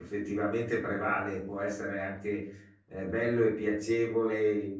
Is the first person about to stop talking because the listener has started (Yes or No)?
No